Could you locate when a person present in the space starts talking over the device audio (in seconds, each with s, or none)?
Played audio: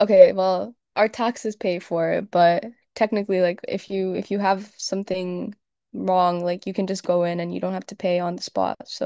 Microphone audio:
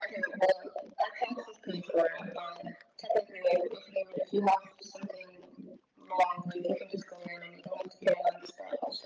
none